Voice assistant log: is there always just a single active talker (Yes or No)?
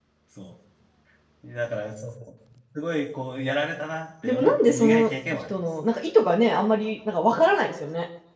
No